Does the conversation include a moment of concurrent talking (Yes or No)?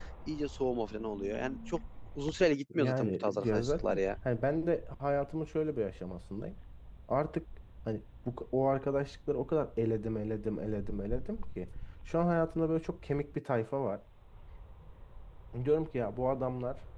Yes